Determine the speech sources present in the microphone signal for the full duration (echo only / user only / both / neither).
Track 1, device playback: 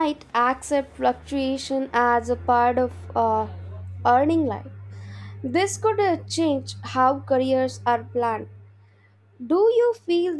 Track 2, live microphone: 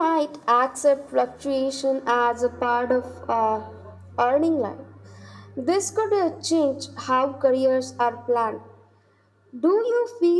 echo only